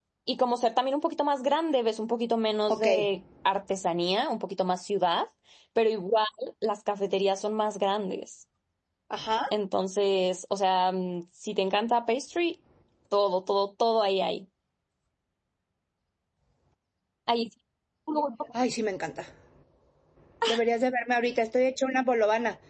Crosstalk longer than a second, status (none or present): none